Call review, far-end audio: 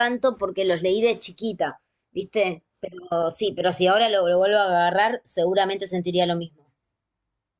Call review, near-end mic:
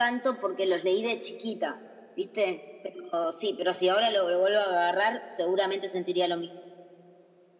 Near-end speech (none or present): none